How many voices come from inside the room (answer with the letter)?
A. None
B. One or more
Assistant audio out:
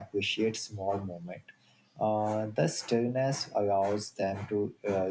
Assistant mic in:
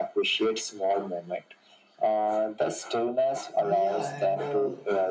B